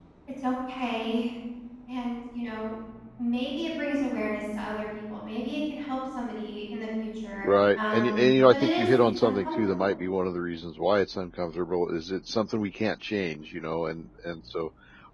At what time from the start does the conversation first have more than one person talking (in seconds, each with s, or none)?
7.4 s